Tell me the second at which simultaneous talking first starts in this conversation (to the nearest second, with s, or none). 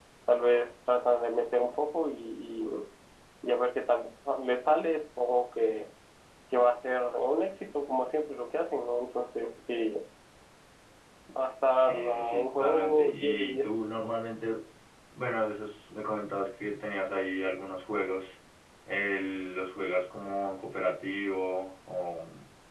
12 s